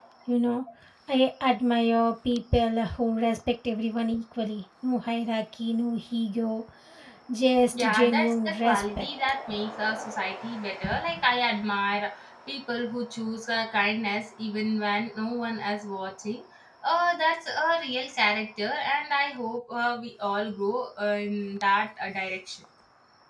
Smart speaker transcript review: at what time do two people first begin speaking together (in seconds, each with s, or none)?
7.8 s